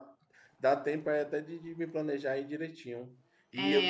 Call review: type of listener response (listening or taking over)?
taking over